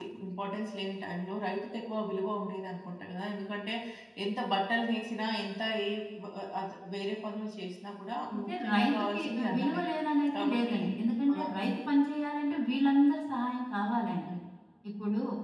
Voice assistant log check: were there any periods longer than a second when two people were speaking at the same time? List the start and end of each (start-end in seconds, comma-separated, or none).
8.3-9.8